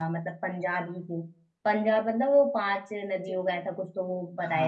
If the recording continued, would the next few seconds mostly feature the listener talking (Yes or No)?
Yes